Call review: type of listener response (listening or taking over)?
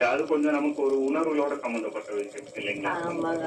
taking over